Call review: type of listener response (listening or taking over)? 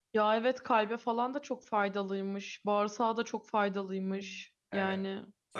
taking over